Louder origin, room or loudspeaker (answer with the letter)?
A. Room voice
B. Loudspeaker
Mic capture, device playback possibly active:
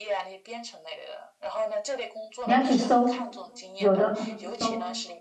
A